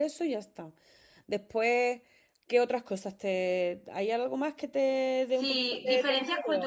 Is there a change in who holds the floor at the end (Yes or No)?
Yes